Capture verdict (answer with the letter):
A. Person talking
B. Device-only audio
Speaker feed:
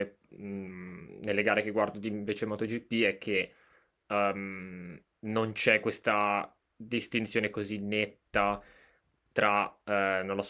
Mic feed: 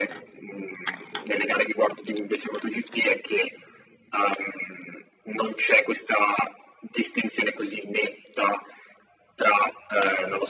B